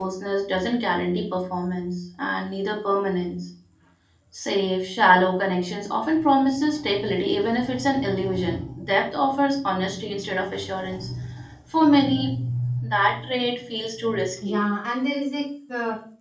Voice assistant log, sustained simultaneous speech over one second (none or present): none